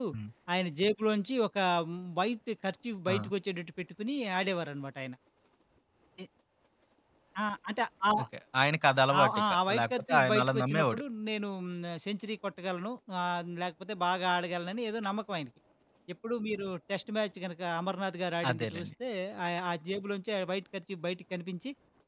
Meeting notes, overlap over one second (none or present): present